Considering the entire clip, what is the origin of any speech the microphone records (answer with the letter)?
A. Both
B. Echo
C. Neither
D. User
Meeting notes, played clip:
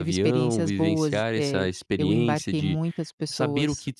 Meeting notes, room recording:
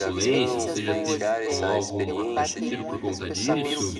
A